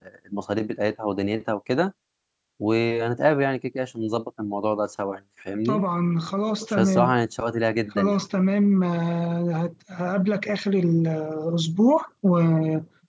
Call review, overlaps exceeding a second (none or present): none